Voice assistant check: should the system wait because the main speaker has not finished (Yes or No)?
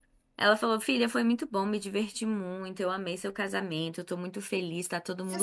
No